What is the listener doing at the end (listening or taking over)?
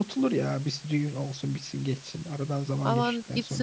taking over